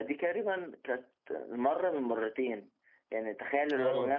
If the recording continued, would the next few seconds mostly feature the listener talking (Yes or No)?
No